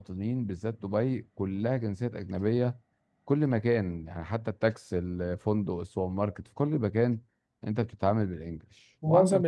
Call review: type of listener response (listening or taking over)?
taking over